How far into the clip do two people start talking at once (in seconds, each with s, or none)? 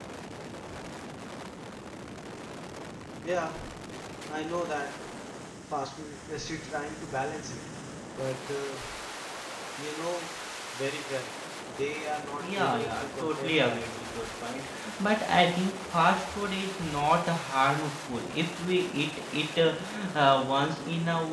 12.4 s